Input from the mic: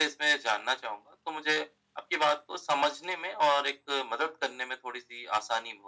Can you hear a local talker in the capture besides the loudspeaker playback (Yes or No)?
No